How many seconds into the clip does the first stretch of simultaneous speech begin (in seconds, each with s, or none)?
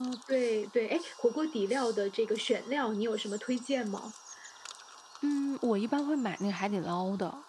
none